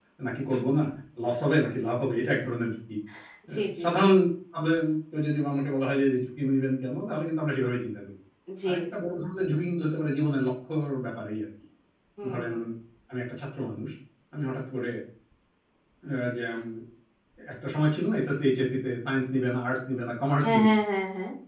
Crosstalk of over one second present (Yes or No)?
No